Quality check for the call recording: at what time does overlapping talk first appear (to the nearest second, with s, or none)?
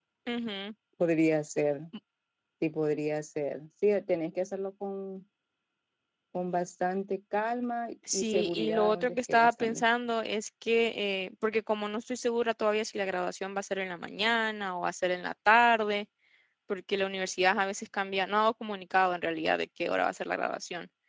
8 s